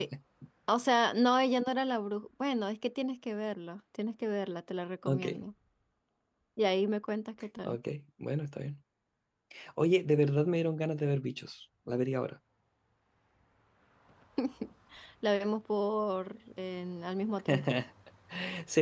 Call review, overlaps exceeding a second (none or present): none